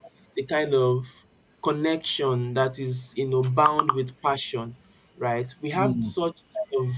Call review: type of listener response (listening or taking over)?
listening